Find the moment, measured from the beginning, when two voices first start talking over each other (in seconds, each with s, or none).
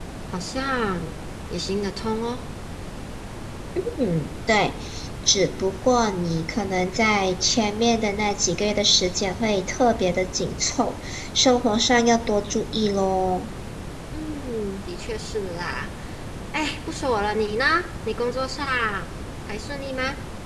none